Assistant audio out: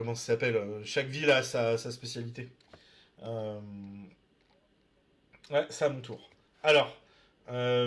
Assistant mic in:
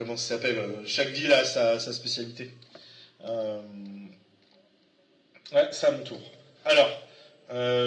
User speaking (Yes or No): No